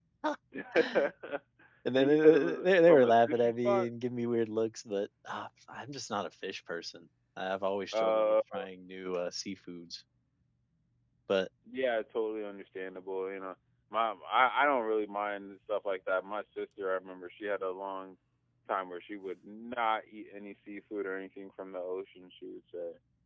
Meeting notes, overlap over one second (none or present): present